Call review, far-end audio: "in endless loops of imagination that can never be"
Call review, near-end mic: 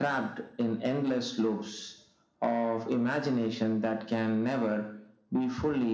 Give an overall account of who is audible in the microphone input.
echo only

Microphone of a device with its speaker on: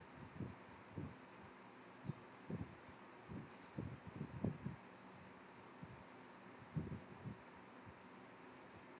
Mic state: neither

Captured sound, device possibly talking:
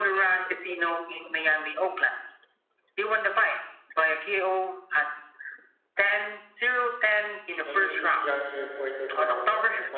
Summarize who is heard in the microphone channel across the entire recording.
both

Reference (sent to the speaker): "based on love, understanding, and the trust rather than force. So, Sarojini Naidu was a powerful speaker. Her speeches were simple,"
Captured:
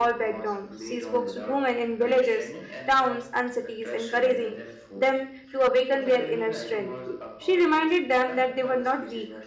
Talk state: both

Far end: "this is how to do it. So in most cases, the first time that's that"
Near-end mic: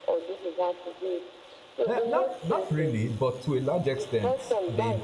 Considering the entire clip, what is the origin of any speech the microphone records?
both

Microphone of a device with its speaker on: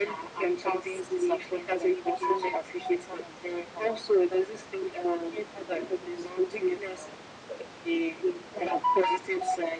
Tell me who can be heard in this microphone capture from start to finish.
echo only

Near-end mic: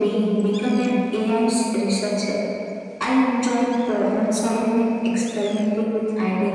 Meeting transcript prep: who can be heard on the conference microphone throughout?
echo only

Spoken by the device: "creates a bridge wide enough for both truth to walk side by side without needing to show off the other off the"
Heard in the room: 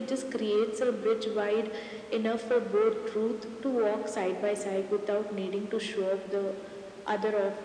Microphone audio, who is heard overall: echo only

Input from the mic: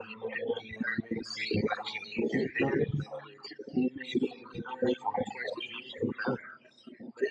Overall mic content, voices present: echo only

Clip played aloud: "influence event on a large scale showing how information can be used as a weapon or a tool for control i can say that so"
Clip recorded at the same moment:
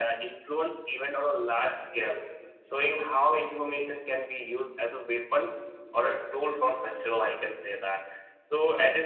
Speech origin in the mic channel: echo only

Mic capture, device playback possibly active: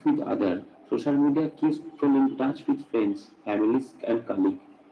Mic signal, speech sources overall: echo only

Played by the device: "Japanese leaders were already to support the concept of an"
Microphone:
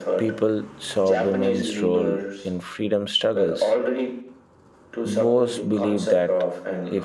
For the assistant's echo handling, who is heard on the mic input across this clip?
both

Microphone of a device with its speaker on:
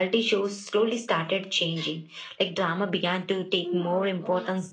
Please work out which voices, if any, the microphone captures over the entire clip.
both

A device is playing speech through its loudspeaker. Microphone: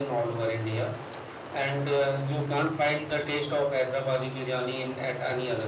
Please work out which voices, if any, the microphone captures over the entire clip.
echo only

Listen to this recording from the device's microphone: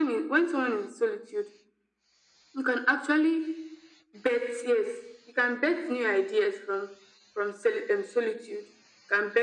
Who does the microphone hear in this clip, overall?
echo only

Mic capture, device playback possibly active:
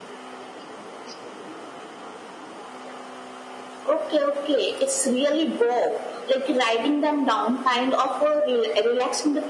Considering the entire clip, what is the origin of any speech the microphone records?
echo only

